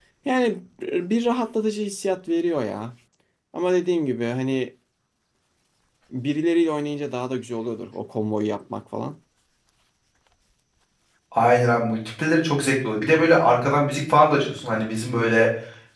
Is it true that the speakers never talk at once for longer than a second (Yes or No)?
Yes